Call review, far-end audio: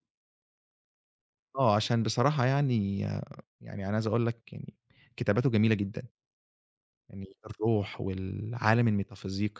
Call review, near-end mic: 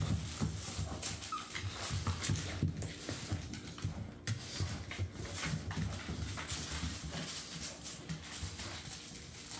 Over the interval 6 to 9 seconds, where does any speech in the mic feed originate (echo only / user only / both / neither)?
neither